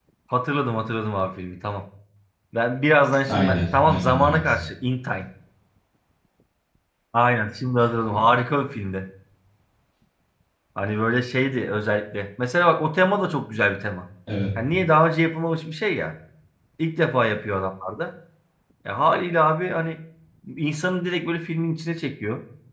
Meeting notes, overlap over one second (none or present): present